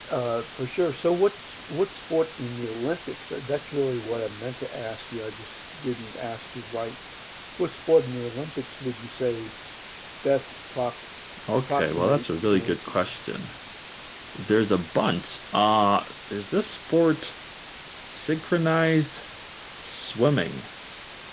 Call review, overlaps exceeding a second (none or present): present